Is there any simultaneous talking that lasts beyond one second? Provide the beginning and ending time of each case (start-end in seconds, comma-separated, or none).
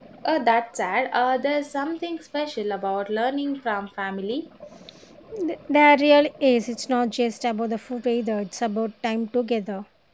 none